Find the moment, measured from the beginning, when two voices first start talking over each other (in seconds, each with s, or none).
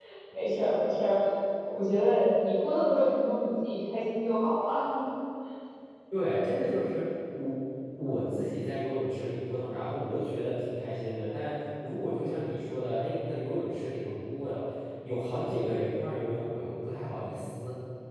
none